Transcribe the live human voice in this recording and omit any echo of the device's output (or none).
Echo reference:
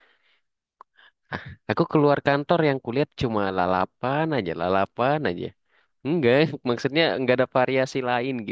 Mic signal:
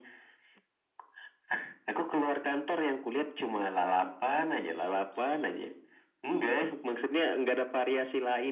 none